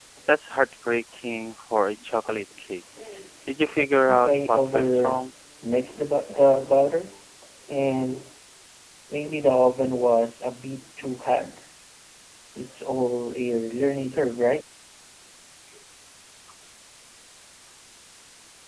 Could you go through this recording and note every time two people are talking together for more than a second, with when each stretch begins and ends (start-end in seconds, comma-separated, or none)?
3.8-5.2